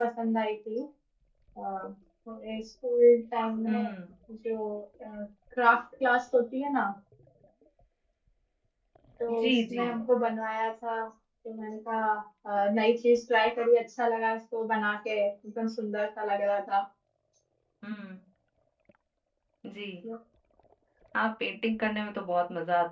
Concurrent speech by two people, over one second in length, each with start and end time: none

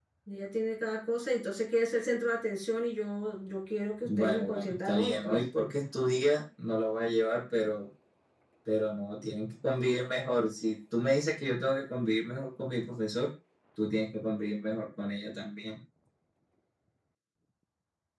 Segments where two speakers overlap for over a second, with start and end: 4.0-5.4

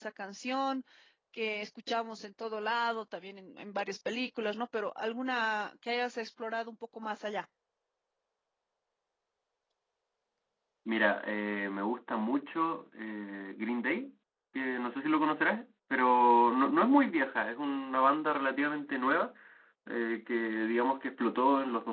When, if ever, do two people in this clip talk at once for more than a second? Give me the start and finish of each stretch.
none

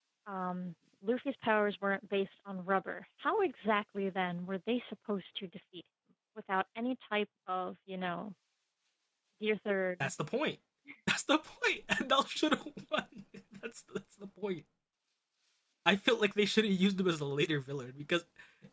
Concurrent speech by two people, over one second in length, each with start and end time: none

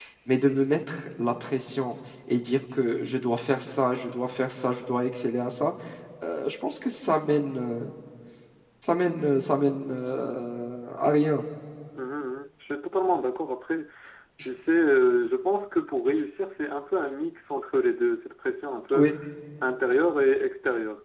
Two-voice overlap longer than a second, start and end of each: none

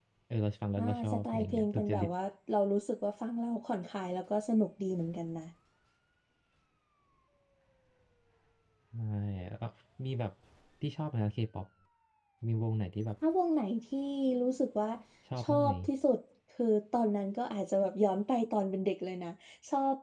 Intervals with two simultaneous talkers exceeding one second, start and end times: 0.8-2.1

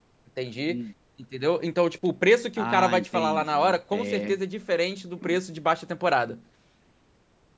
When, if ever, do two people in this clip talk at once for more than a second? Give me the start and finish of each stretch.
2.6-4.4

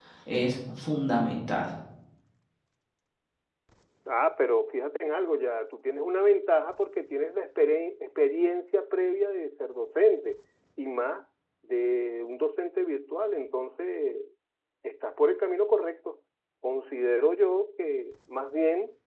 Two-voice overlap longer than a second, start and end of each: none

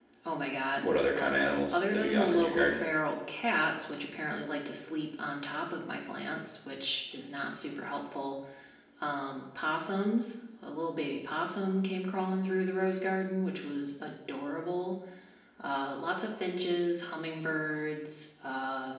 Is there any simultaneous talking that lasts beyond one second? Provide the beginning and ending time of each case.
0.8-2.8

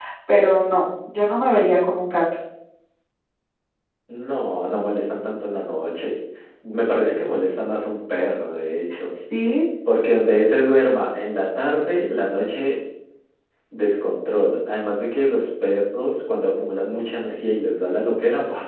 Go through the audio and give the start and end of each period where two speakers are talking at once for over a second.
none

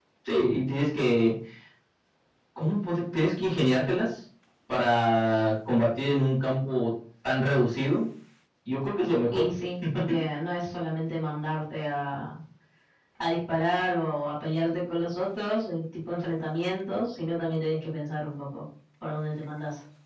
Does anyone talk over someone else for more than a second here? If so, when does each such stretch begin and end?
none

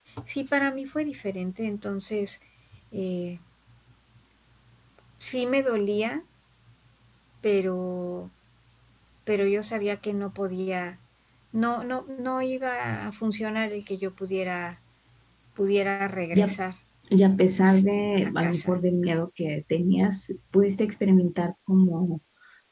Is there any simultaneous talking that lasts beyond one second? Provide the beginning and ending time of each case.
17.5-18.8

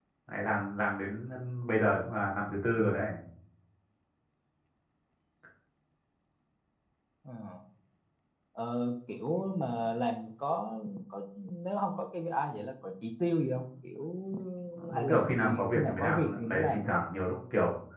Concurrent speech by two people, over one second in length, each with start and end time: 14.9-16.9

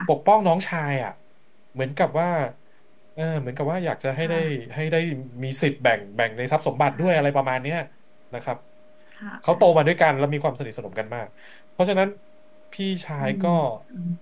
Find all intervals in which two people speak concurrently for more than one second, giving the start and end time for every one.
none

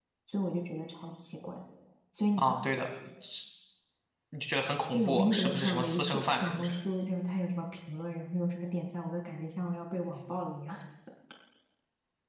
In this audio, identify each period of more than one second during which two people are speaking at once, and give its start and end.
4.9-6.7

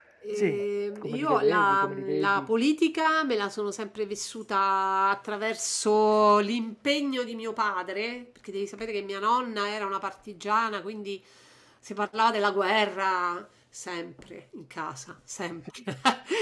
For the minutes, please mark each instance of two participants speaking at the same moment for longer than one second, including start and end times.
1.0-2.5

